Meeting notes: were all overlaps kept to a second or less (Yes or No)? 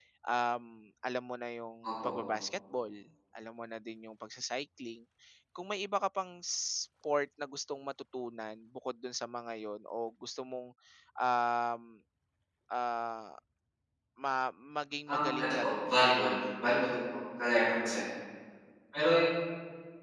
No